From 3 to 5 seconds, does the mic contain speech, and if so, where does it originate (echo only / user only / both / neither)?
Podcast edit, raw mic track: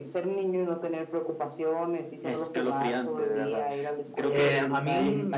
both